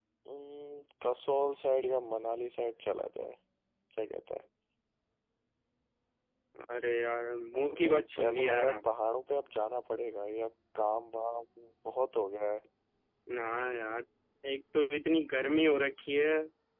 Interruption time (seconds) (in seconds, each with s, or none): 7.6 s